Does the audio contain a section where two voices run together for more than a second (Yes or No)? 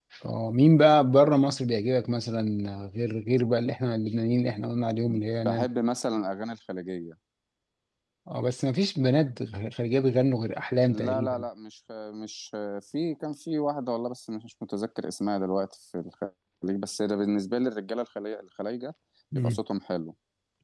No